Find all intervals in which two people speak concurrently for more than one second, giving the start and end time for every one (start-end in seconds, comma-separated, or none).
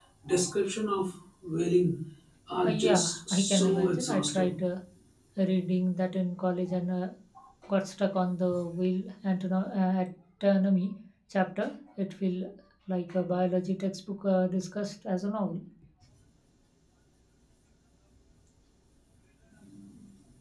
2.6-4.5